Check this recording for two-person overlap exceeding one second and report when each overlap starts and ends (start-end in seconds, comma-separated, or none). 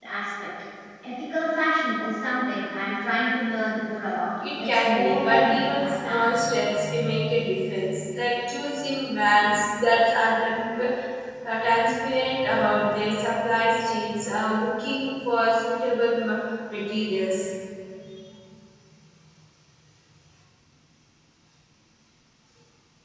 4.6-6.4